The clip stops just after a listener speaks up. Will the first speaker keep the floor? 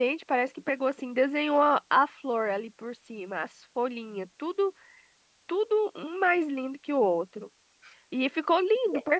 Yes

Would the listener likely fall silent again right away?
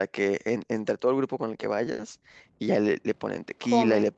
Yes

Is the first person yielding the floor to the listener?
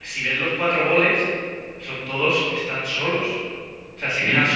No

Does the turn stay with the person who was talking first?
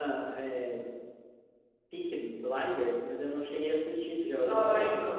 No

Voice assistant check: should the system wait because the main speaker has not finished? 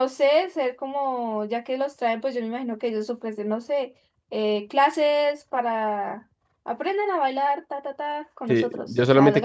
No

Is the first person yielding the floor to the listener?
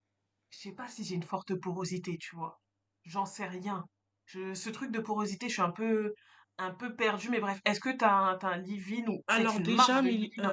Yes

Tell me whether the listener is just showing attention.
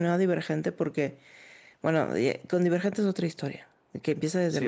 Yes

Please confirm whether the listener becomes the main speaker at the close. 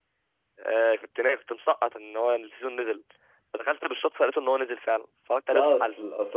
Yes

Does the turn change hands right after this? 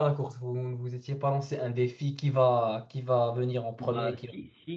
Yes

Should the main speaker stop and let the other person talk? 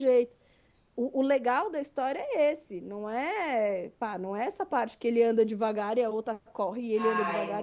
Yes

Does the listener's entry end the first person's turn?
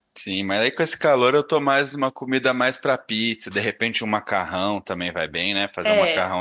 No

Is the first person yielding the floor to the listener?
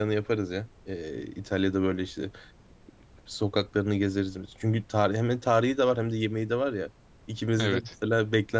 No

